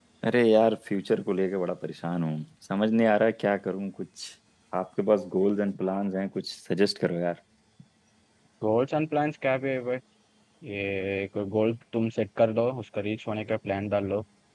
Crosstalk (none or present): none